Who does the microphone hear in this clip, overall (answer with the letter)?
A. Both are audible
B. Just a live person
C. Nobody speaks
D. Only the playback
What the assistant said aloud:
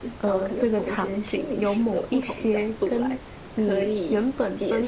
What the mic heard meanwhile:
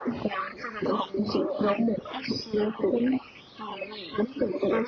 D